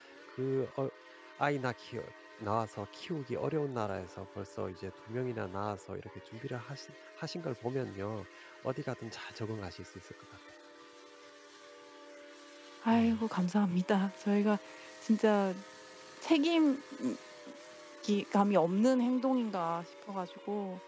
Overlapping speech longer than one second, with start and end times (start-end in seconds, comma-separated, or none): none